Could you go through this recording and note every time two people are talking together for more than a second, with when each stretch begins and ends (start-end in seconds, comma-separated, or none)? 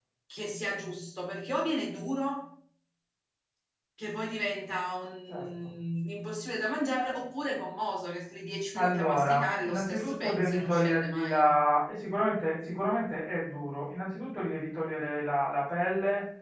8.8-11.5